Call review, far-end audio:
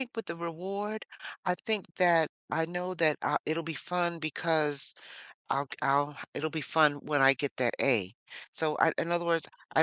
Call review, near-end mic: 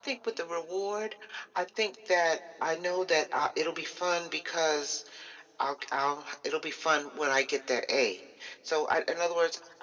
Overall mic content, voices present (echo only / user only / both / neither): echo only